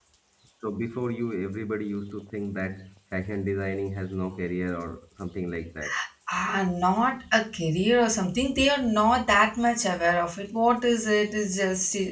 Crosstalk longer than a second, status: none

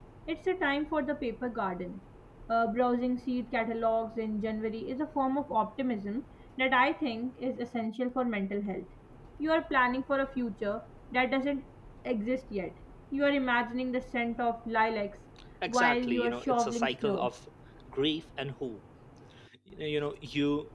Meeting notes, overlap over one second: present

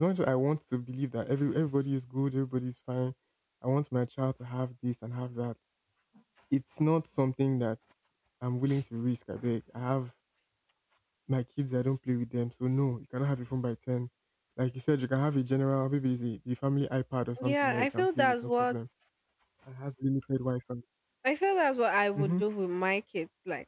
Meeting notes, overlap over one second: present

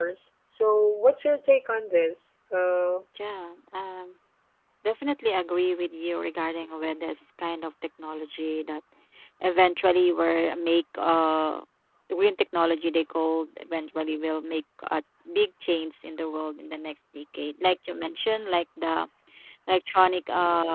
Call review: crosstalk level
none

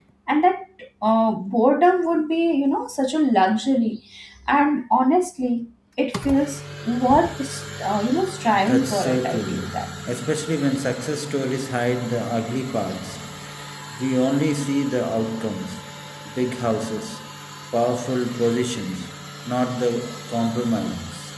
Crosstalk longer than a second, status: present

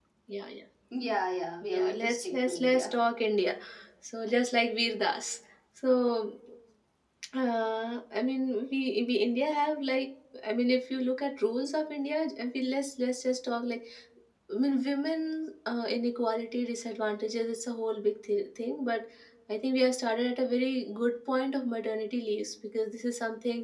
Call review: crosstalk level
present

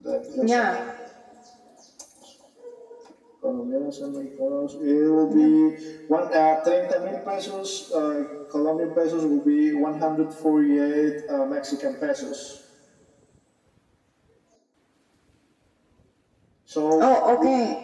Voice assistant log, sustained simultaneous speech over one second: none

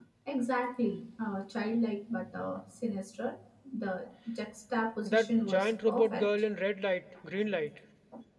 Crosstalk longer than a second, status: present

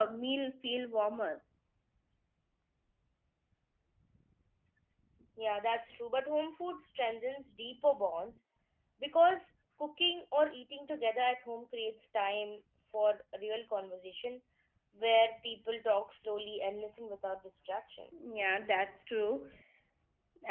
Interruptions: none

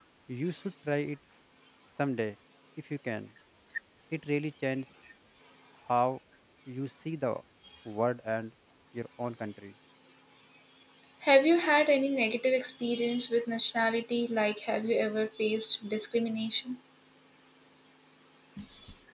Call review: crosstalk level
none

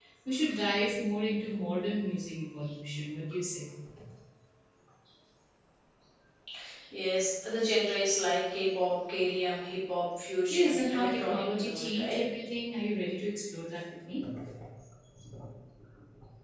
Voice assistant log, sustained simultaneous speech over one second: present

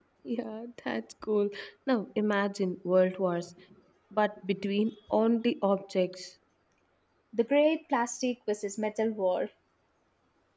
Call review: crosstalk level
none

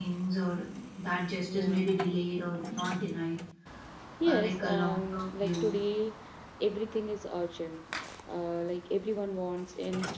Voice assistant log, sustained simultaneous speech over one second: present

